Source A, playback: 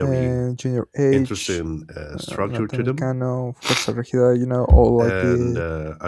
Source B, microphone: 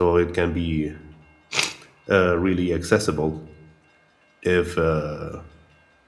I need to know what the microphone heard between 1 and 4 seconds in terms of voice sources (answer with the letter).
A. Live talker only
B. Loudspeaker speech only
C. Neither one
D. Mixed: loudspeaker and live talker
A